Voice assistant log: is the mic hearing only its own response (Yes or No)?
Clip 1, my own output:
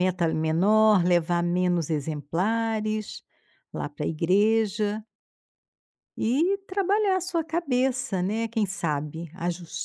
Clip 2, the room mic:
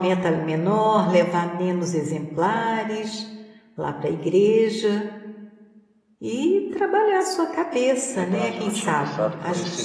No